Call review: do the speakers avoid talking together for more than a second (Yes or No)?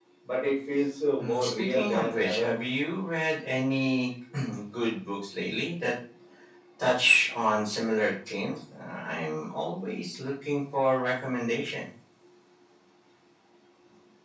No